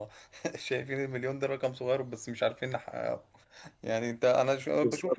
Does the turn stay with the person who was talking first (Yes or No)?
No